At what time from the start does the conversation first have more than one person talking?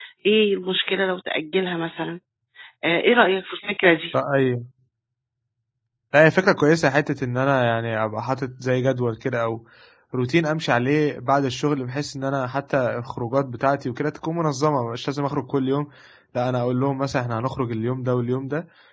none

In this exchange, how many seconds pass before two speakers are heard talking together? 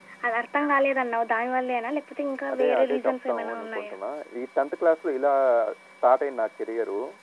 2.5 s

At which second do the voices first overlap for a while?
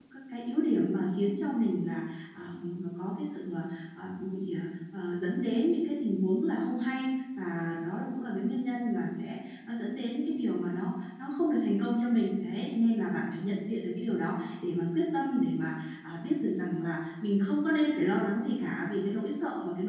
none

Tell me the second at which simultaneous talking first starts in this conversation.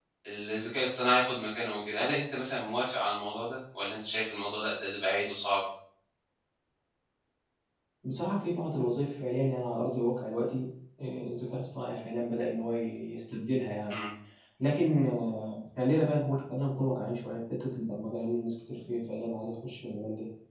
none

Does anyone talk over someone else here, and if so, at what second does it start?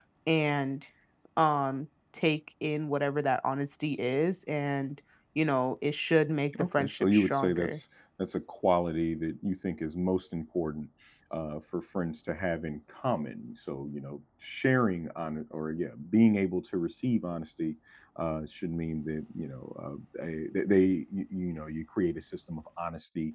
6.5 s

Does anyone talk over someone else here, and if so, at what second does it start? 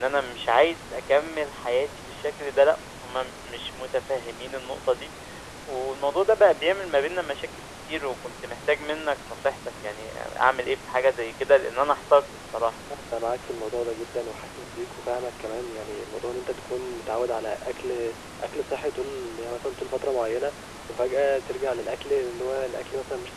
none

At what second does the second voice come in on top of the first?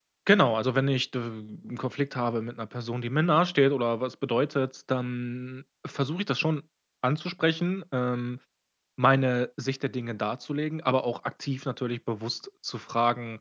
none

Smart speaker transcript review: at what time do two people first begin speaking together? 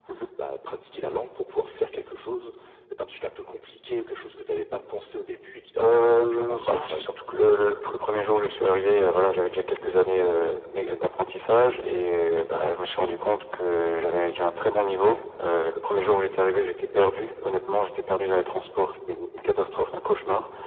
5.8 s

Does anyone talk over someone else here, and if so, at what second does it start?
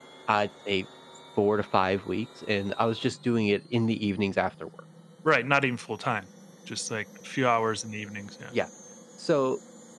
none

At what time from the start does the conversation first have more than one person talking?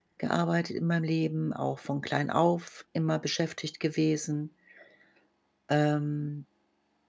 none

